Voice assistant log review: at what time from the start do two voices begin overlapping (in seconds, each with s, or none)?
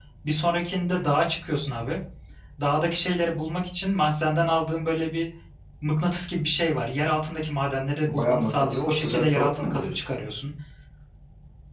8.1 s